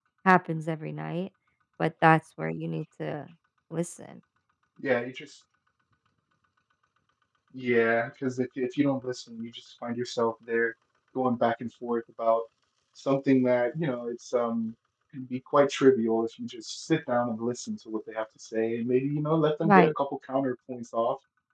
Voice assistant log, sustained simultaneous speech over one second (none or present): none